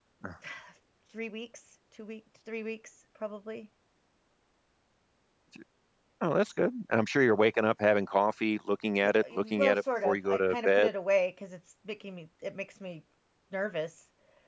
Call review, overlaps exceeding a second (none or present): present